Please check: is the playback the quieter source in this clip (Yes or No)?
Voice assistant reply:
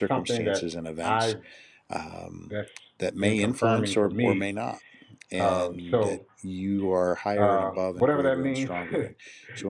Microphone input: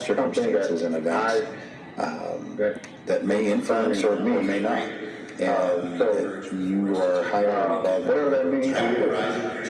No